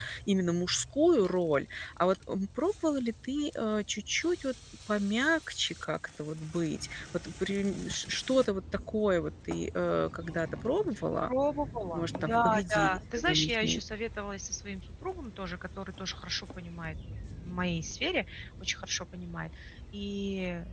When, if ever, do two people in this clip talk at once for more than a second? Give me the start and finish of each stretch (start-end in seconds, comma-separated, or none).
11.9-13.8